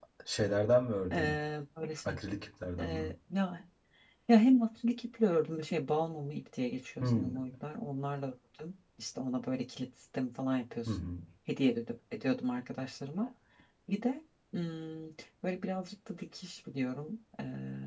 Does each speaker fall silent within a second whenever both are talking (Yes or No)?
Yes